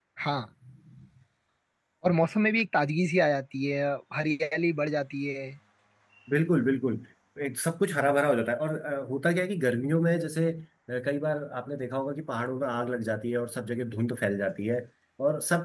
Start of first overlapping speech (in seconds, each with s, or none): none